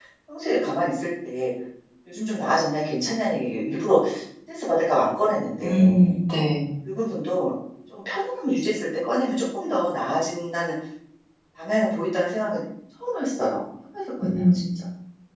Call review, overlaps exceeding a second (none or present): none